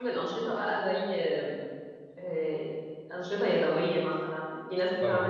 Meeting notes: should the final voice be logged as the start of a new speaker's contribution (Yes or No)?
No